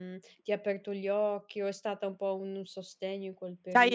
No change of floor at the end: No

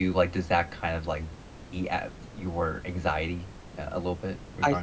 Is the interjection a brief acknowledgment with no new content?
No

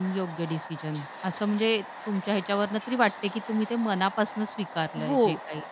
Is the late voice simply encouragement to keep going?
No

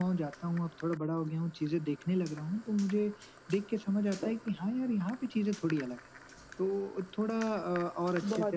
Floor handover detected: No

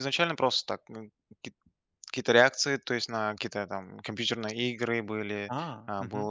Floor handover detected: No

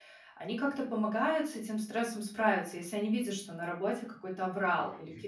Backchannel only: Yes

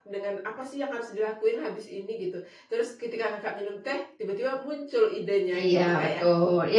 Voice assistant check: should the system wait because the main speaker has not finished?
No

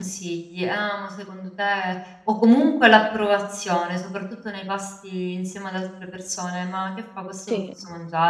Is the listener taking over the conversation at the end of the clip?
No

